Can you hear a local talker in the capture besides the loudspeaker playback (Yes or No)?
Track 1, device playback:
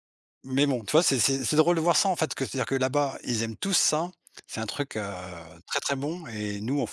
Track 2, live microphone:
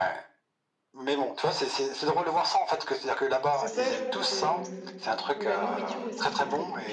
Yes